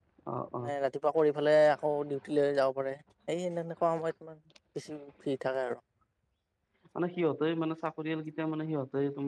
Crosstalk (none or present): none